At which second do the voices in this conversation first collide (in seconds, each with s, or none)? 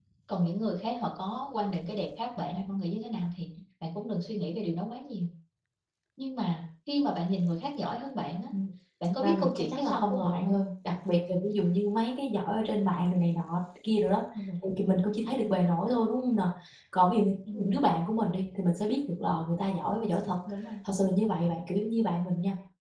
9.1 s